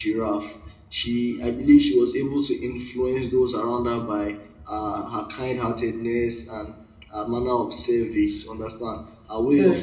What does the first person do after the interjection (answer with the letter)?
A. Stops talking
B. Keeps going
B